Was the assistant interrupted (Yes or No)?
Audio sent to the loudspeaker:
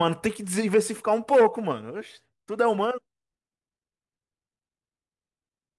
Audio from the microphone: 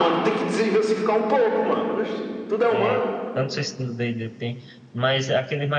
Yes